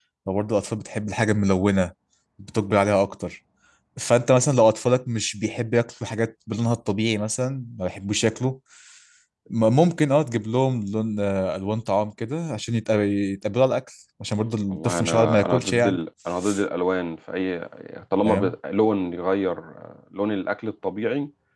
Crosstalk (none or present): present